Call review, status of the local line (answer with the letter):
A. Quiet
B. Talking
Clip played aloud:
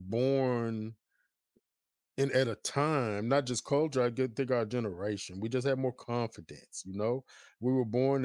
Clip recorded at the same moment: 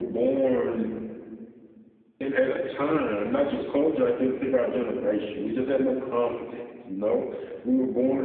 A